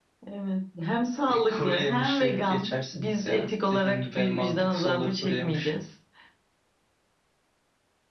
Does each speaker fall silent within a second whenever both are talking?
No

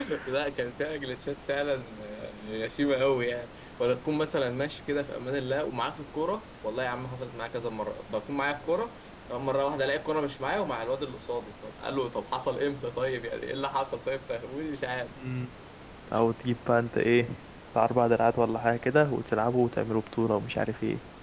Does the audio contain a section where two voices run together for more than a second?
No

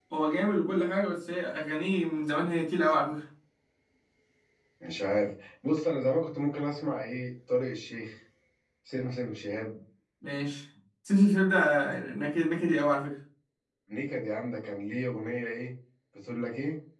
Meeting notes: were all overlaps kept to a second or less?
Yes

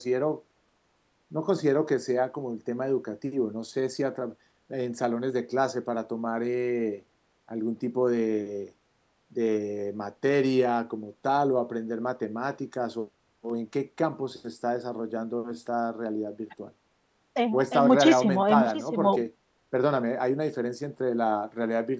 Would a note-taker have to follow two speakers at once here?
Yes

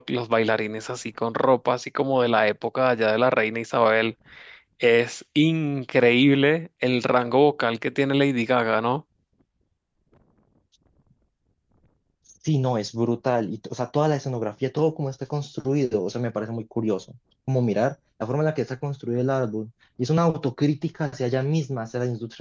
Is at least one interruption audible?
No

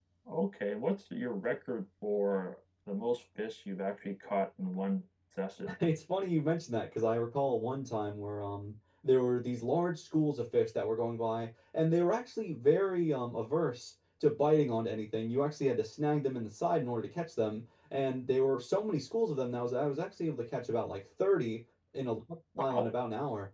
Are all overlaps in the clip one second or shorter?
Yes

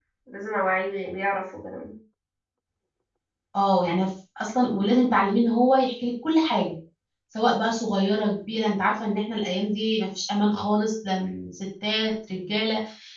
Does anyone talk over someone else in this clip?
No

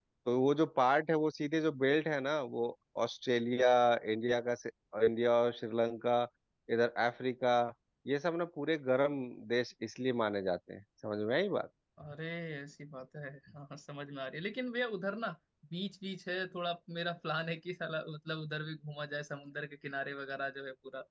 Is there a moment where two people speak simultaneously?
No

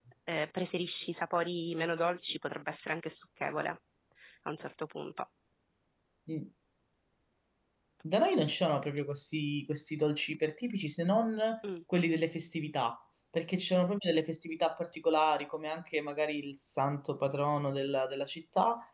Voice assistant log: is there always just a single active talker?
Yes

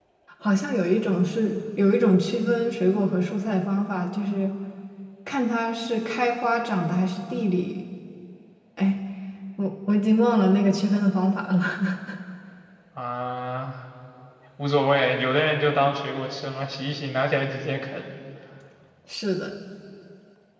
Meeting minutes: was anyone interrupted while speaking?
No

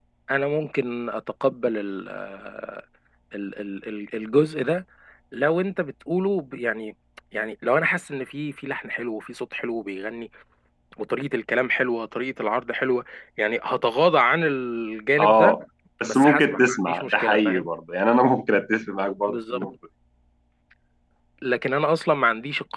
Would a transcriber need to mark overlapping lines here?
Yes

